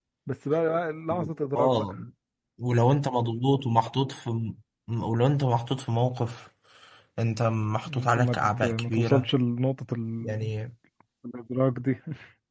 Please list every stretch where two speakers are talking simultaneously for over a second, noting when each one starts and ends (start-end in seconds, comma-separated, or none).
7.8-9.3